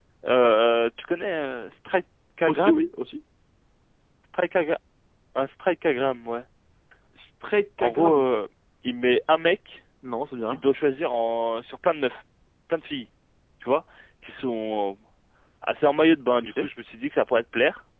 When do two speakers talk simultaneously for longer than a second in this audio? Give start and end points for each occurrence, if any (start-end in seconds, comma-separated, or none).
none